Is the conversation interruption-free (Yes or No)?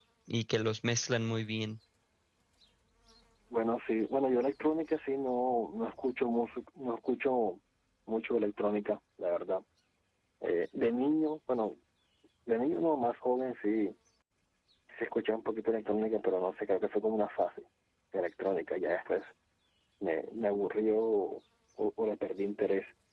Yes